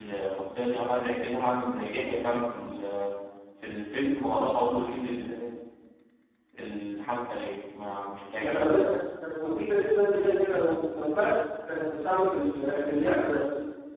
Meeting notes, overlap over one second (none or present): none